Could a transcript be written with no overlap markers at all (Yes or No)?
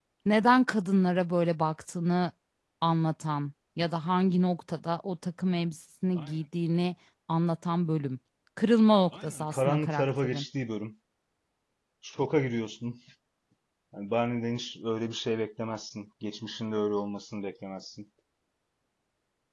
No